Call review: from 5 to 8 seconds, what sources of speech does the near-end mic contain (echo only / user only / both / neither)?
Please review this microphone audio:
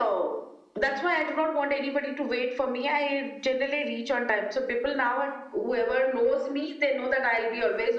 echo only